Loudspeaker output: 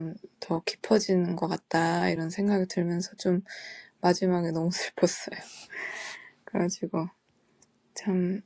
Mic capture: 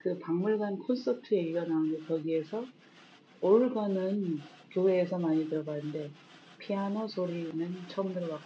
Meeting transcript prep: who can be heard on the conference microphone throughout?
user only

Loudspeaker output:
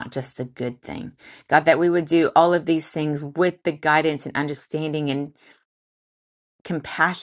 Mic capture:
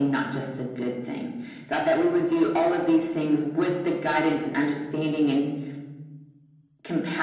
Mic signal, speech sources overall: echo only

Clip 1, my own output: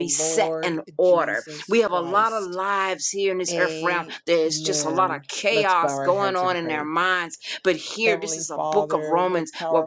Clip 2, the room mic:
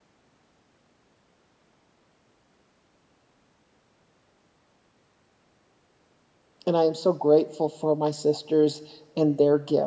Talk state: user only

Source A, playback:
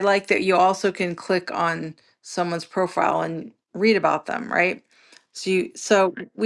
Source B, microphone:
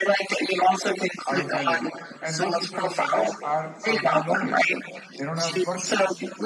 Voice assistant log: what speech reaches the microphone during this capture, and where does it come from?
both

